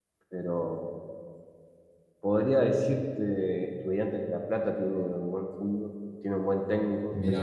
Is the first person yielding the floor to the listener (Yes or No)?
No